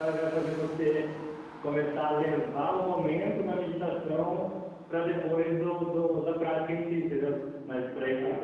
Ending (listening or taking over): listening